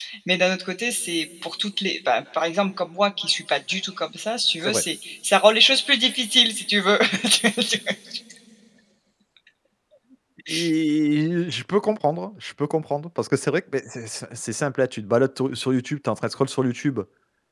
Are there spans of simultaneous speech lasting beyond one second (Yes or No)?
No